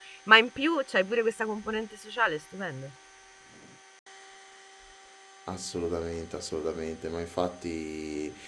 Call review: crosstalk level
none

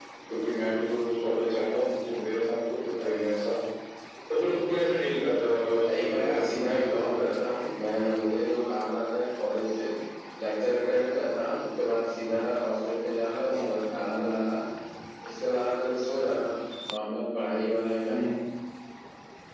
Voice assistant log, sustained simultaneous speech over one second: present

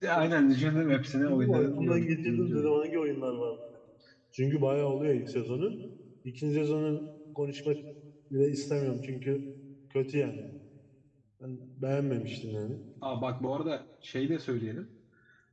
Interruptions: present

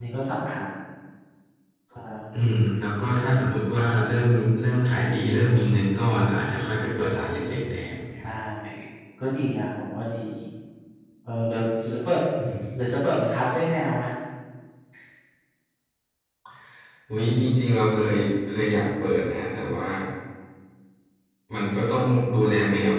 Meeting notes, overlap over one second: none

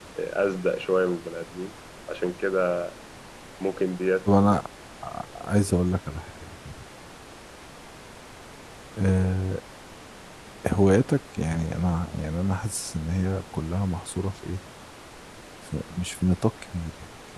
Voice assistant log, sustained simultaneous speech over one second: none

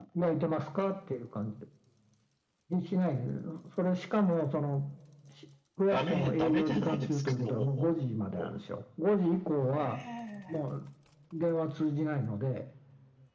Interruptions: present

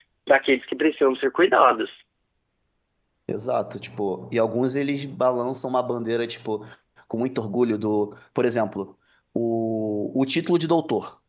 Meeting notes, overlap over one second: none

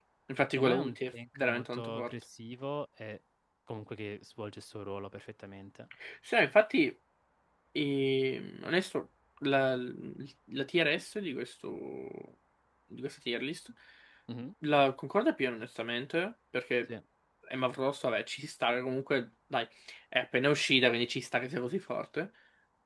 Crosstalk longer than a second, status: present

